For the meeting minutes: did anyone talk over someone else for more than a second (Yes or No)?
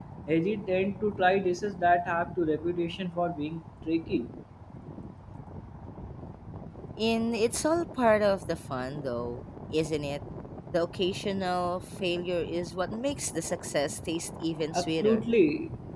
No